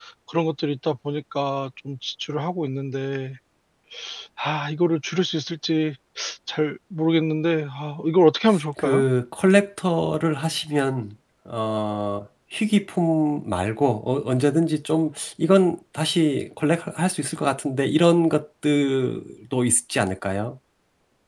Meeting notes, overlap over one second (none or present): none